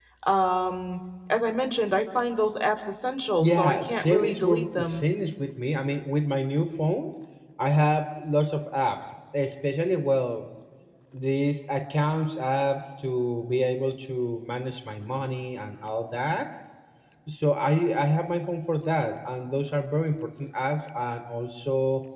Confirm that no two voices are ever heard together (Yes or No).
No